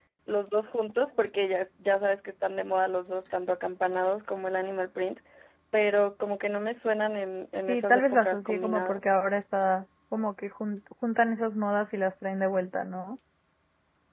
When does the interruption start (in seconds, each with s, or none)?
7.7 s